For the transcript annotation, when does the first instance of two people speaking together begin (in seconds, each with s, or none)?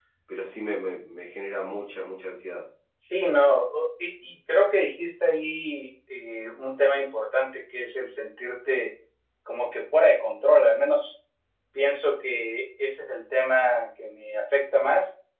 none